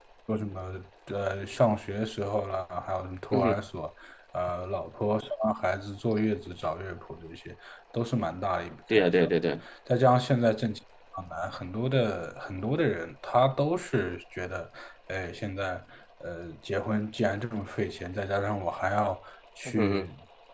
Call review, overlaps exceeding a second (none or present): none